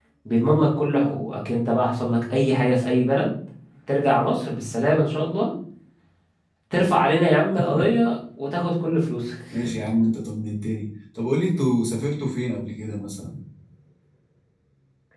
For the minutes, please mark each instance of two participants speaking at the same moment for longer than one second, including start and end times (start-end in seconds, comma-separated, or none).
none